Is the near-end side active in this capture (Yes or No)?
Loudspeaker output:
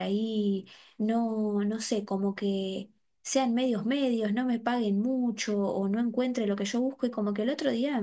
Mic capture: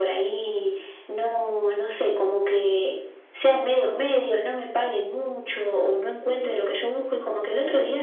No